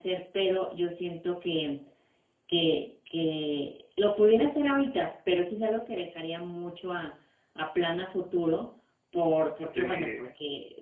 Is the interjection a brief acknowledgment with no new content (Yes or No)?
Yes